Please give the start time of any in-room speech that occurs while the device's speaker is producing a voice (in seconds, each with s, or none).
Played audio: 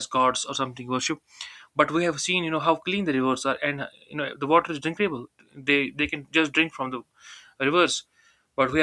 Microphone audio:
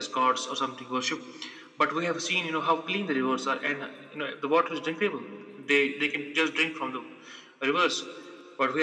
none